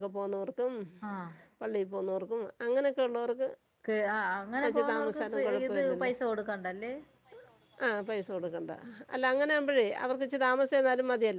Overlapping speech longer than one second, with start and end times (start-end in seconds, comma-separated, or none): 4.6-6.1